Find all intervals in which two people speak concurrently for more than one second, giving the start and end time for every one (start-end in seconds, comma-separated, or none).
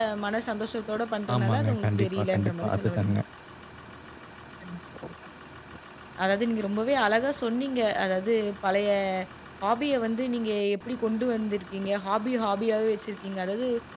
1.3-3.2